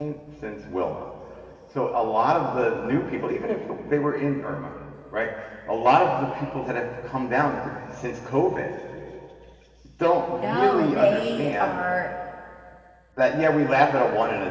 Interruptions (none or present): present